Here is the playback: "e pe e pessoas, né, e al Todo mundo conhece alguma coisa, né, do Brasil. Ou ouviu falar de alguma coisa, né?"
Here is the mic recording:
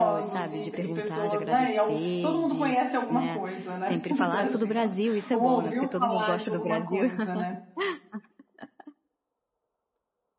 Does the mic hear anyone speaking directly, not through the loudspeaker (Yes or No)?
Yes